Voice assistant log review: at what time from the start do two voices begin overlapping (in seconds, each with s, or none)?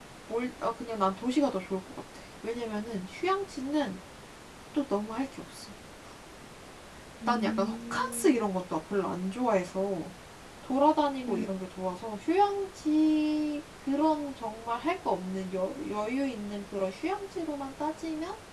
7.3 s